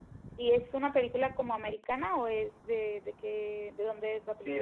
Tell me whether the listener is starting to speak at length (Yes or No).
Yes